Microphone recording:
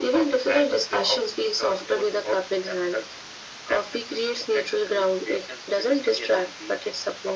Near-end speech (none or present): none